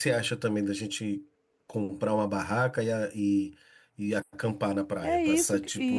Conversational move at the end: taking over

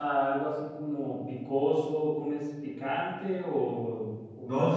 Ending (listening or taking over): taking over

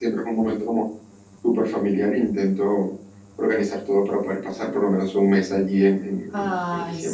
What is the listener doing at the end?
taking over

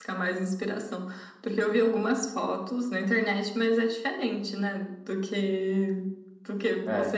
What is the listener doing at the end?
listening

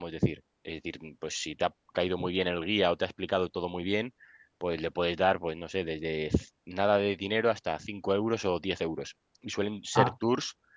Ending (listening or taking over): listening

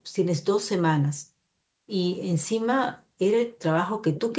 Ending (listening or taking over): listening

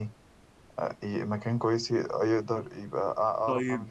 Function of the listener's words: taking over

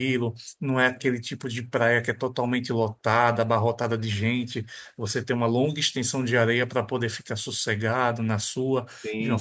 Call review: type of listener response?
listening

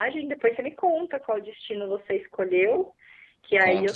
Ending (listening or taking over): listening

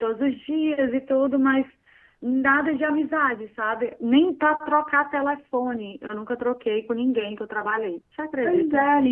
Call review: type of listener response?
taking over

